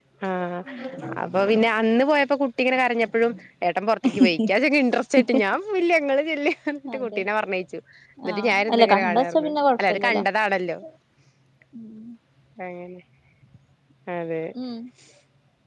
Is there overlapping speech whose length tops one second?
Yes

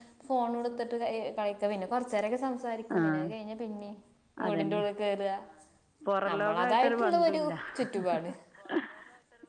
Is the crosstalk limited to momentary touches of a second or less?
No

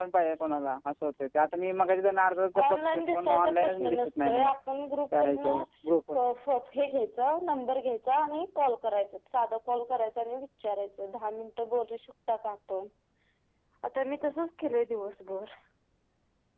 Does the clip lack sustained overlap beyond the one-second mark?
No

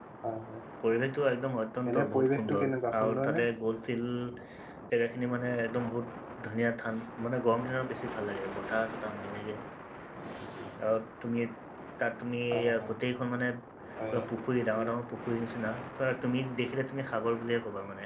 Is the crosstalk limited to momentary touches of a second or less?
No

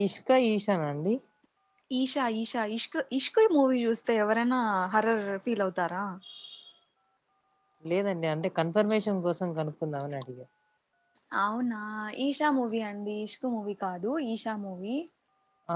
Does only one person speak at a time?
Yes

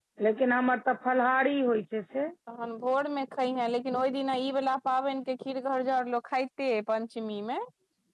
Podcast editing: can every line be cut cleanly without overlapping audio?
Yes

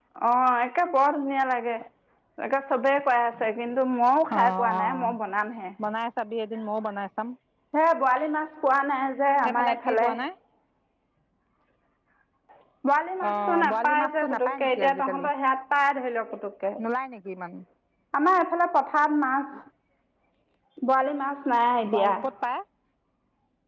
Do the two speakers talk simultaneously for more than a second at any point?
Yes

